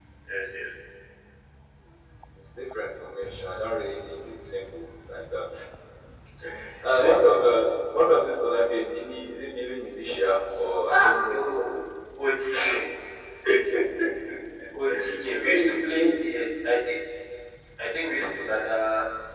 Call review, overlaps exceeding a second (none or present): present